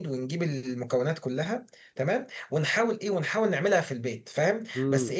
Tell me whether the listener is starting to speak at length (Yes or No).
No